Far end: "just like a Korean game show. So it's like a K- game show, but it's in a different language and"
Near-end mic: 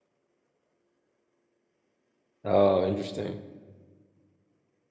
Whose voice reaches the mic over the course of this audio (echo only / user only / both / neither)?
user only